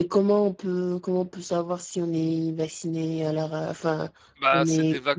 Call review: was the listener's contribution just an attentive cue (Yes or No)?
No